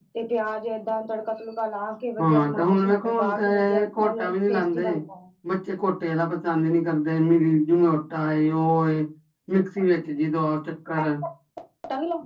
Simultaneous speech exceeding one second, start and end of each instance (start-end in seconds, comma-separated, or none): 2.2-5.0